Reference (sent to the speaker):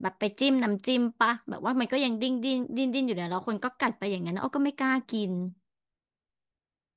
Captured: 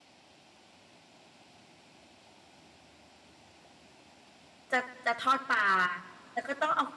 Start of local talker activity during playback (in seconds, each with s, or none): 4.7 s